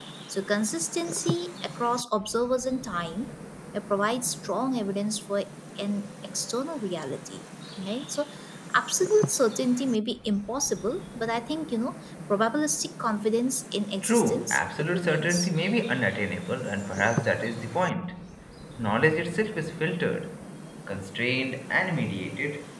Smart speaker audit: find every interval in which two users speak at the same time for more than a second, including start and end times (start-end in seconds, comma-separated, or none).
14.0-15.5